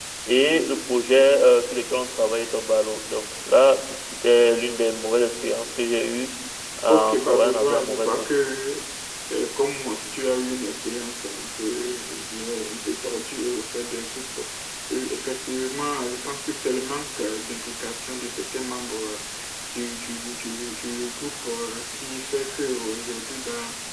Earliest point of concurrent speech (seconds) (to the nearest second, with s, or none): 7 s